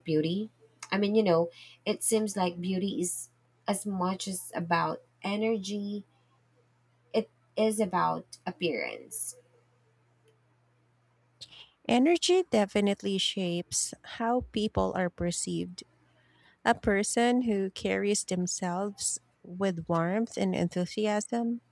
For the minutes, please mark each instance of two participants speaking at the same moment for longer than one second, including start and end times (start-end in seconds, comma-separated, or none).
none